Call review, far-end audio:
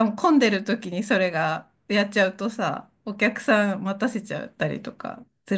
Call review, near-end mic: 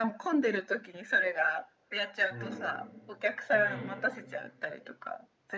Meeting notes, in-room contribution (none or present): present